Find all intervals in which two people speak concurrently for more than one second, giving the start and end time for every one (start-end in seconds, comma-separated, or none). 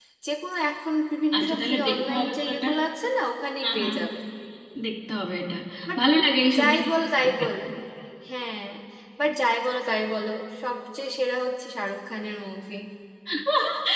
1.4-2.6